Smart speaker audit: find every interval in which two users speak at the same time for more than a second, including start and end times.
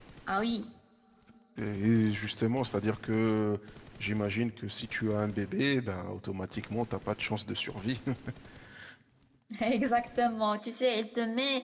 none

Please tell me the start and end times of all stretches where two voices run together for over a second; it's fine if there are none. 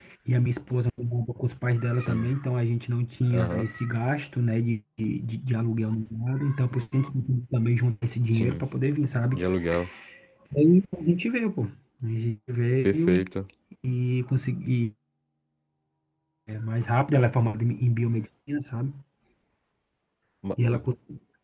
none

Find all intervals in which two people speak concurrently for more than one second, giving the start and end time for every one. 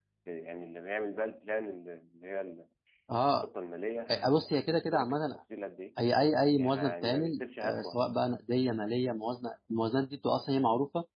4.1-5.3, 6.6-8.0

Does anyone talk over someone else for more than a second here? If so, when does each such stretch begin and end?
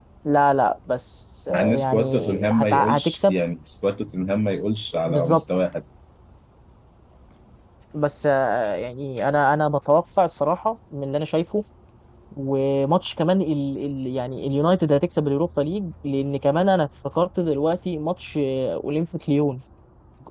1.5-3.4

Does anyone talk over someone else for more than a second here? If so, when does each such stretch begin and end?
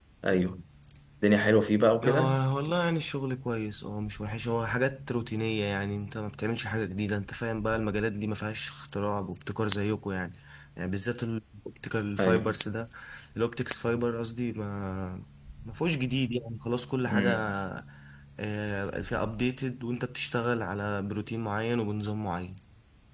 none

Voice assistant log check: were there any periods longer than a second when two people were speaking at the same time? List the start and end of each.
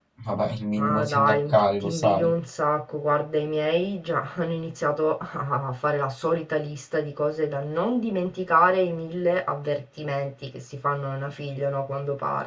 0.8-2.3

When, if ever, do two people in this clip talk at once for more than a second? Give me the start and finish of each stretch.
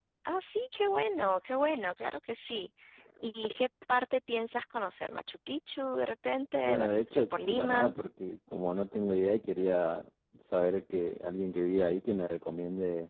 6.6-7.9

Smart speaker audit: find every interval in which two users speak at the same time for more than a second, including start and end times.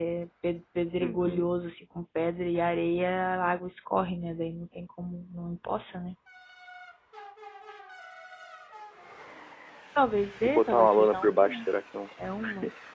10.4-11.7

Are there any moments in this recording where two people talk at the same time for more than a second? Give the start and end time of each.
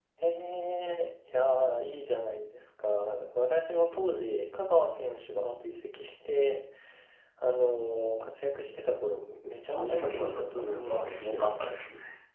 9.7-11.5

